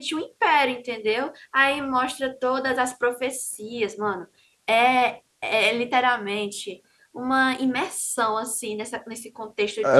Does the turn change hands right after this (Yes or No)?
Yes